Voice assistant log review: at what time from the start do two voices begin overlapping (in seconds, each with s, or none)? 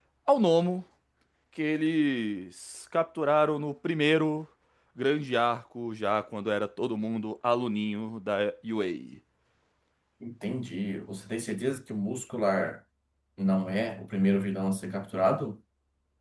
none